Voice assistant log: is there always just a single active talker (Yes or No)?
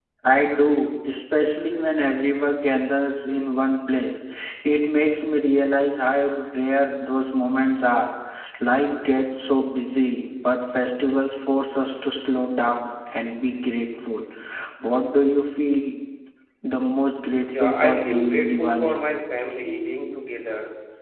No